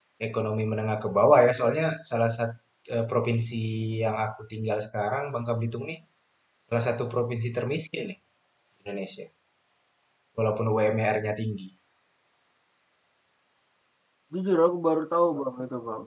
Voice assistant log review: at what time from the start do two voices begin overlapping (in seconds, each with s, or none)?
none